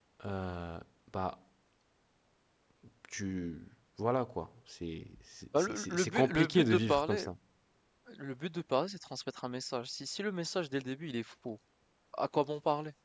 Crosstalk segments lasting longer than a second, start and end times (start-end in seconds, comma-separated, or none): 5.6-7.3